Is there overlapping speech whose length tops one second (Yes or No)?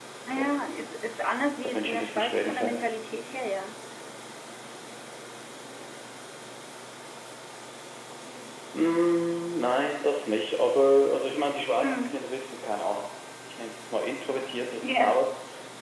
Yes